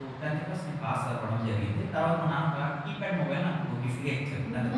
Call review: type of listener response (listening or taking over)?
taking over